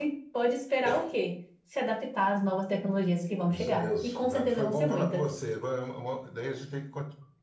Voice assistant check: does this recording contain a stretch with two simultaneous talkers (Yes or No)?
Yes